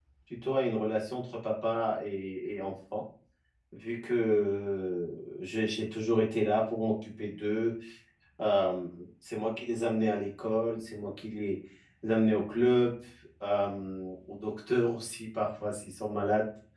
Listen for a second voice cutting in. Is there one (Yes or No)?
No